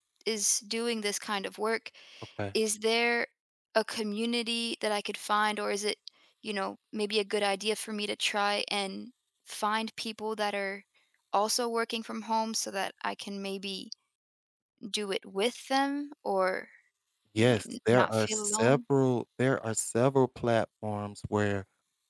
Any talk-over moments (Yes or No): Yes